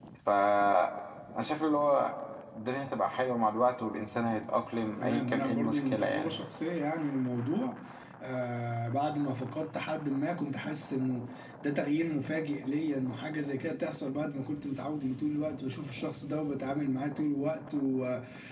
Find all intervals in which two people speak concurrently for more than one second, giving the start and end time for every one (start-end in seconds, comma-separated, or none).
5.0-6.4